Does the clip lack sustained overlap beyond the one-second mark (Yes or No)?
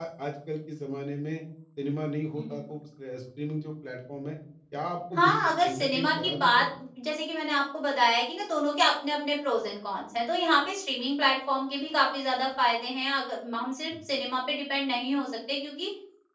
No